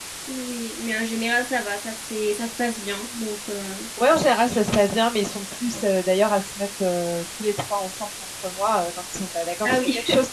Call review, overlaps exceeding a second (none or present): none